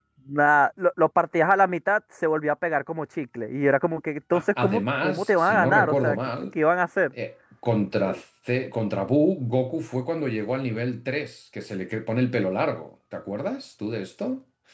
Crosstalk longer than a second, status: present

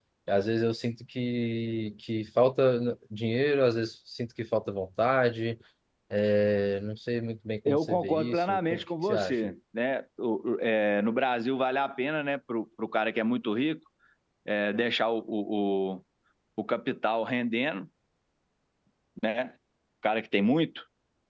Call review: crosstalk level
present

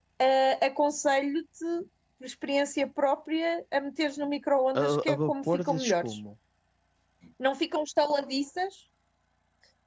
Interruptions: present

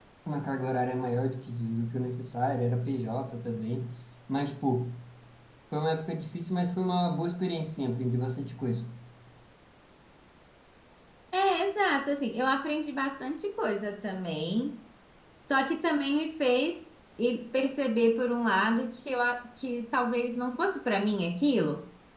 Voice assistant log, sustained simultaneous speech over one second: none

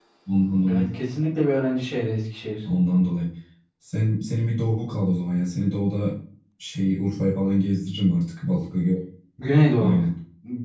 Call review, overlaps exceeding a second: none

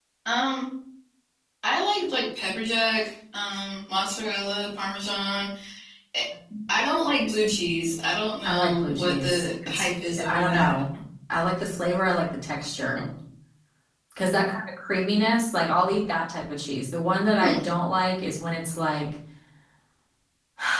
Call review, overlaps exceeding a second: present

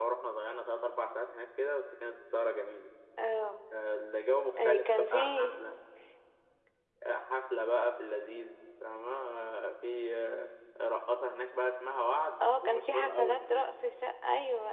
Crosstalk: present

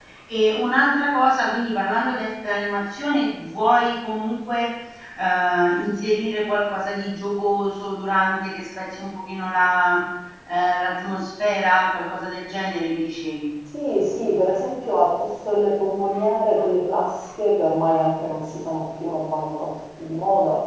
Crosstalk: none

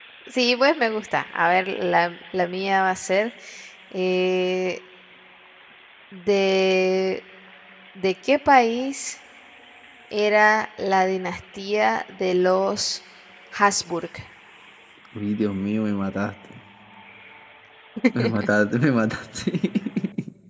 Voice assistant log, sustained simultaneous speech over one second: none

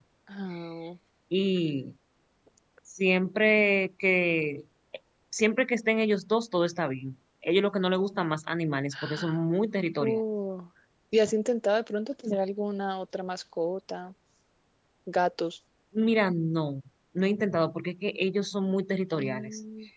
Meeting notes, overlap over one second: none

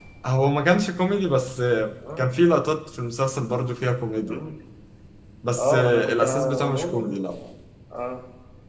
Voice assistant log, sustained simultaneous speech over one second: present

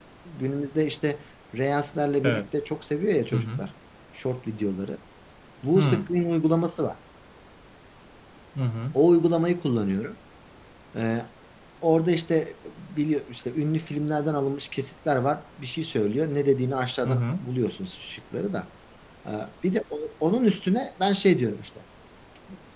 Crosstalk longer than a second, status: none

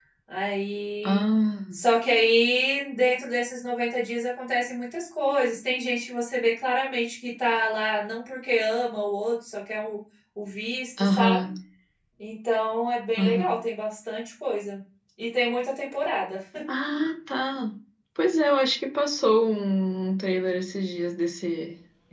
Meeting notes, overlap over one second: none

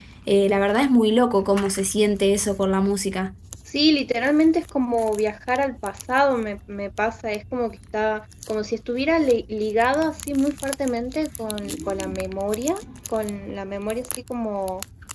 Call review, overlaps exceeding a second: none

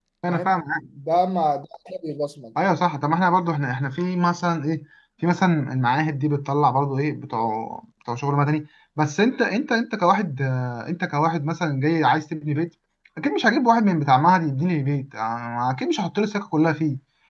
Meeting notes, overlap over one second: none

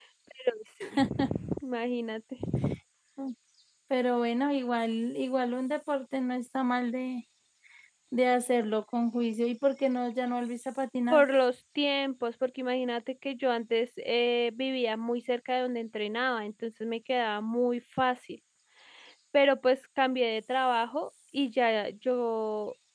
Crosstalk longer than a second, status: none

